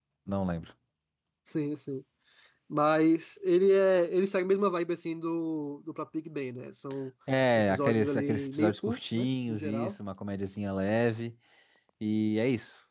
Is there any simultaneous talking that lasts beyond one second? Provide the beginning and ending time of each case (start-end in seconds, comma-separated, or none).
7.5-9.9